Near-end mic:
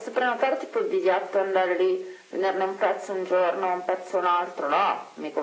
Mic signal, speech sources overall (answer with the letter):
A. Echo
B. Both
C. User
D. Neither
A